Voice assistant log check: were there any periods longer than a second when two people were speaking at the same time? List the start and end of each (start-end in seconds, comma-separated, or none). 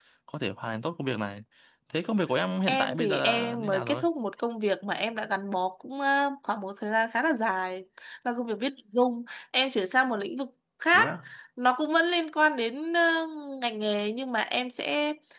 2.7-4.0